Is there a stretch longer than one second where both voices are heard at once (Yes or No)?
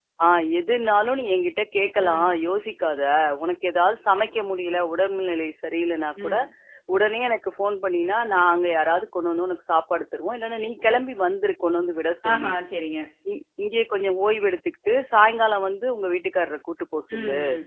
No